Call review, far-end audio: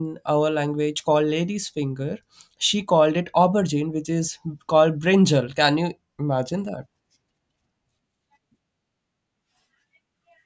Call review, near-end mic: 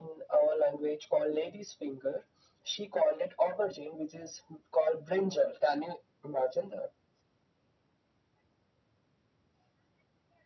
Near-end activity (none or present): none